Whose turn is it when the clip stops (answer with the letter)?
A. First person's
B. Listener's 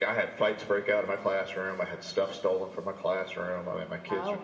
A